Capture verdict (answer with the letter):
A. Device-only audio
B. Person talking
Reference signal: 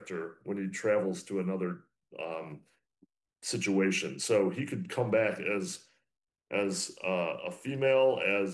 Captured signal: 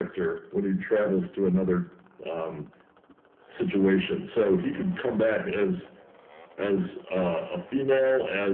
A